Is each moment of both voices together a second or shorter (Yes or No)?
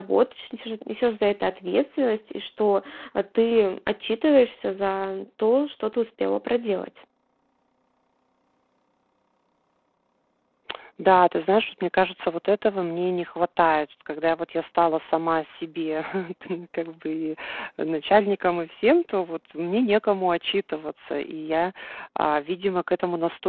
Yes